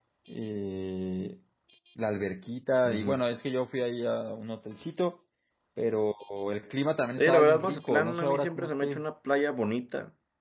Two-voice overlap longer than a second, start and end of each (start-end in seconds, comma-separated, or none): 7.2-9.0